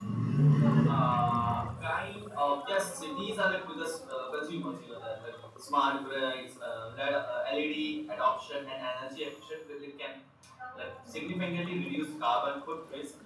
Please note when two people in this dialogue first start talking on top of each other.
none

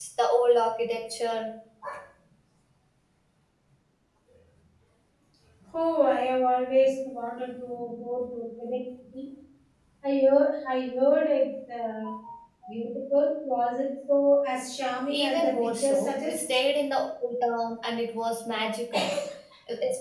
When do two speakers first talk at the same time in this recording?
15 s

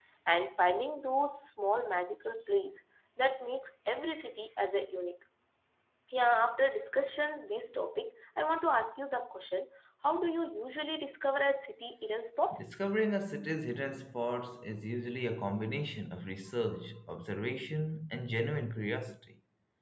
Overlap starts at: none

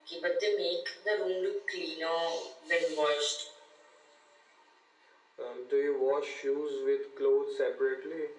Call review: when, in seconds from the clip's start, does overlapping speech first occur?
none

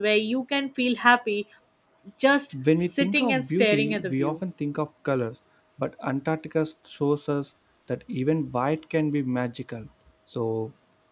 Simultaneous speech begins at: 3 s

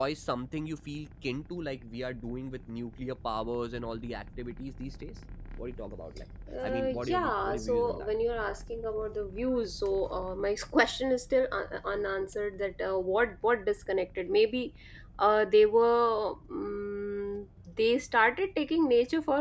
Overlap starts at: 6 s

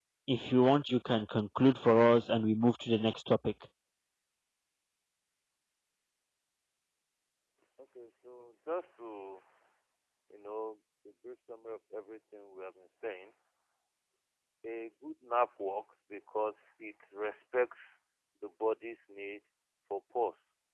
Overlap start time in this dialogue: none

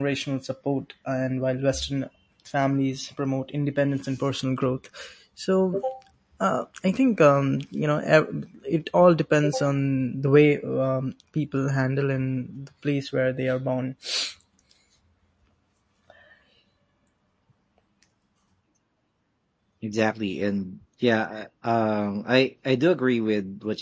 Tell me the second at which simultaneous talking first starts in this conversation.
none

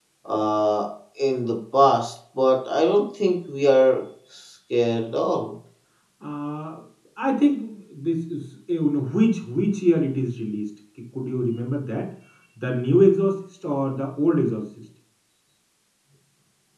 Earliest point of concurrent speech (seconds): none

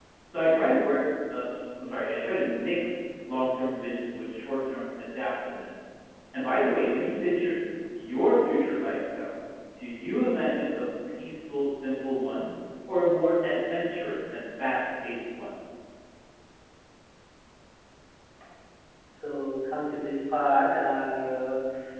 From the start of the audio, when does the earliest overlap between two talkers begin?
none

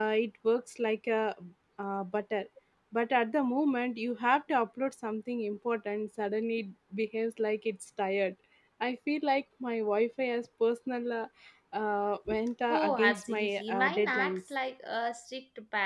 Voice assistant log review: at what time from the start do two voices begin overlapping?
13 s

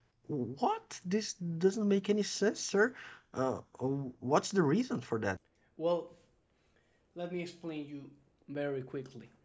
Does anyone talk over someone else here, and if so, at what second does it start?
none

